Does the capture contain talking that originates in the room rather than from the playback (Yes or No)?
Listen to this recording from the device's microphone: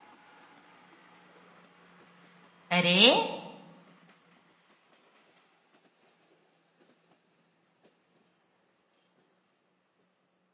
Yes